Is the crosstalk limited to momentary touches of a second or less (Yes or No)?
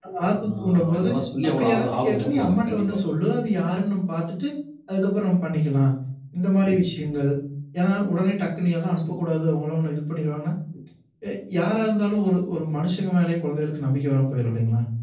No